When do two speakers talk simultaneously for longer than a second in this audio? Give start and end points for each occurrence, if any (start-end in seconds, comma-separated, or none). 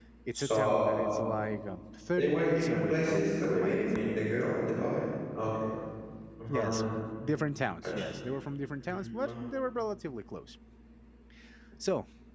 2.1-3.9